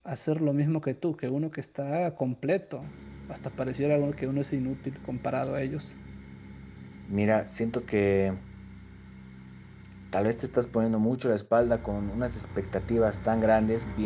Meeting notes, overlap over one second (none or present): none